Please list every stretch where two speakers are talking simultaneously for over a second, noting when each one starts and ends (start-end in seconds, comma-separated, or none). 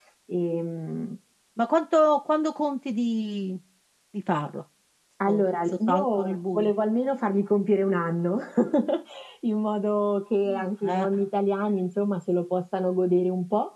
5.3-6.7